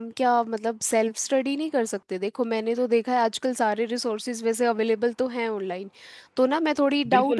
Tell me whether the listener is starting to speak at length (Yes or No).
Yes